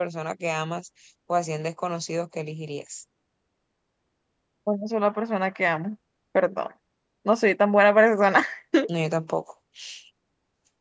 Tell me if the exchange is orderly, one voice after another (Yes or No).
Yes